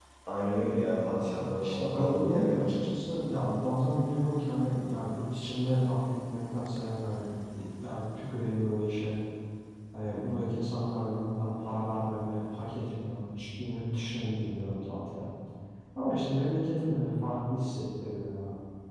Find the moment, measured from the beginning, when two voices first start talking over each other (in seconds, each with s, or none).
1.4 s